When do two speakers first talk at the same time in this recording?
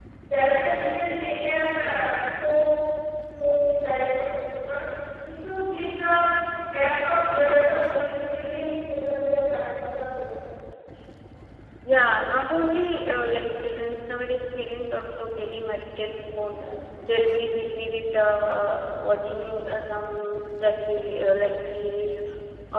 none

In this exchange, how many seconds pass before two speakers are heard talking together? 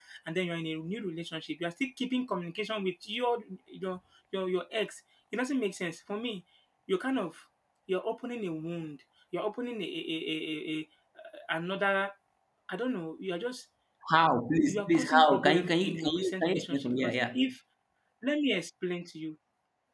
14.7 s

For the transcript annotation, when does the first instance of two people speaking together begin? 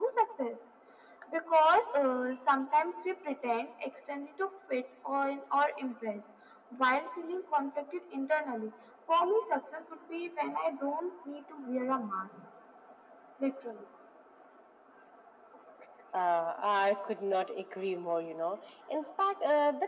none

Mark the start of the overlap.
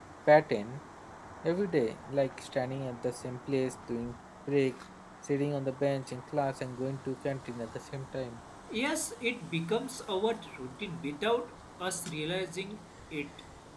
none

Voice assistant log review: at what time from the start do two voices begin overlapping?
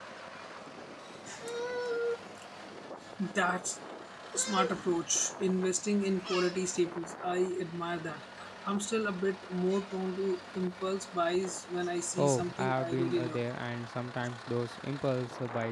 12.1 s

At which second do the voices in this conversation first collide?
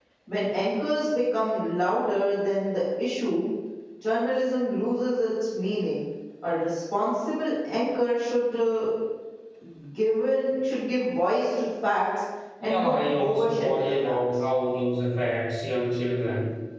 12.6 s

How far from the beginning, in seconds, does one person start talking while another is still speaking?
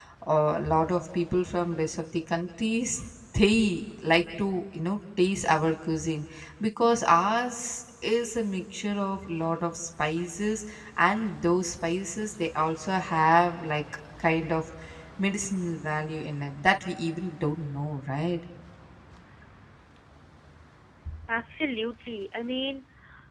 none

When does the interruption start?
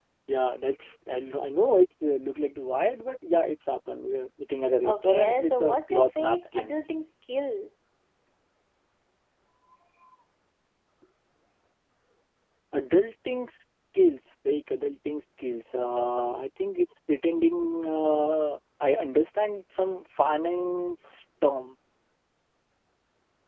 4.8 s

